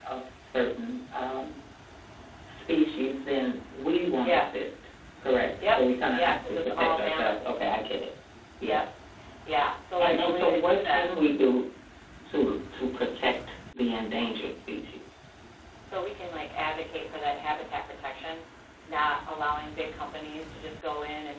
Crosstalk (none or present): present